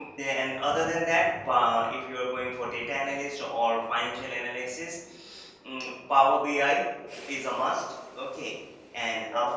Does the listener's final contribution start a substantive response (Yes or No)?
Yes